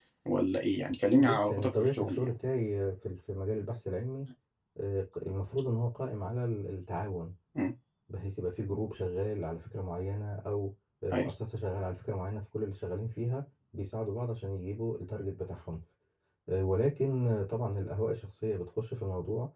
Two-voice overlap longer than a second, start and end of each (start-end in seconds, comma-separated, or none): 1.1-2.4